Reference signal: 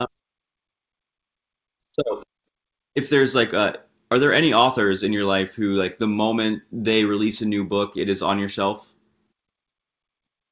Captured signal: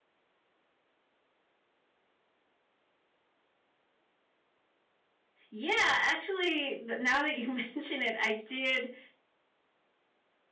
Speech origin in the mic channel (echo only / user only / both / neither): user only